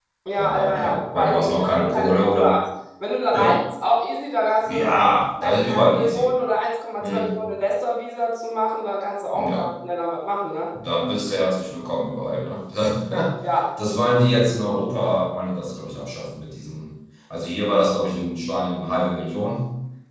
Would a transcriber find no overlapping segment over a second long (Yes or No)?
No